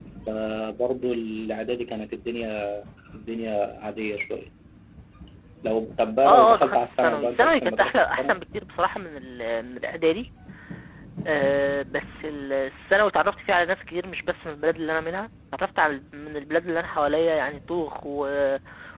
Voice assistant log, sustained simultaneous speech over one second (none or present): present